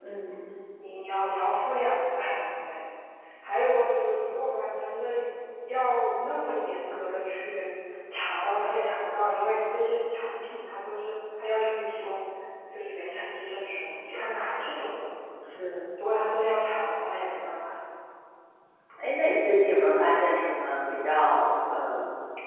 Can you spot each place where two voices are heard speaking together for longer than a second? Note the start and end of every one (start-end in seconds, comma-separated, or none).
none